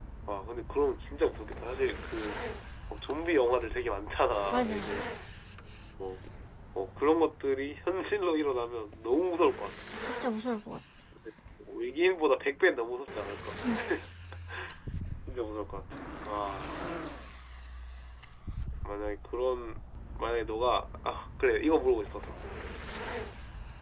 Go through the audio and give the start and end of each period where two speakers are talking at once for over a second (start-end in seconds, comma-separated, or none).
none